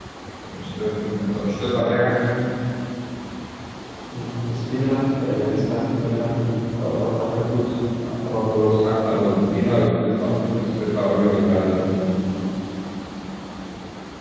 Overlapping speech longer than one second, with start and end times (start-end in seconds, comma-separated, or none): none